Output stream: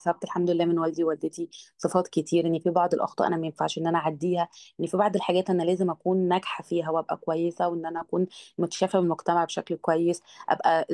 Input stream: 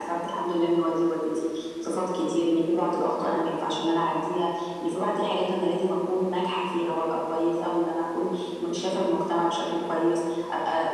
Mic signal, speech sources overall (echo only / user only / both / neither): echo only